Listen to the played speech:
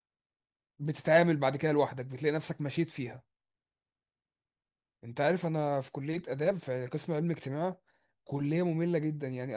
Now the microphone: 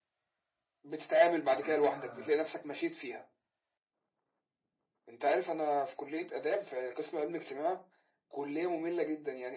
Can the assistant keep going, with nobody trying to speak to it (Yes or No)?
No